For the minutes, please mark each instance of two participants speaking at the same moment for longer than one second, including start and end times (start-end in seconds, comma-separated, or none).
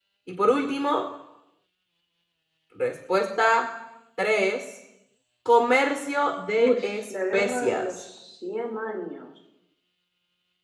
6.6-8.0